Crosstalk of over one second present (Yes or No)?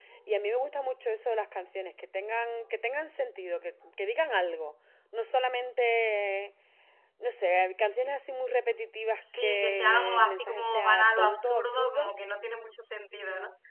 Yes